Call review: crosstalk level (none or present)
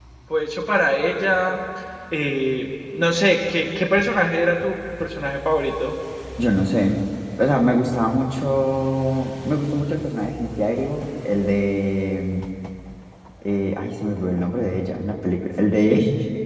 none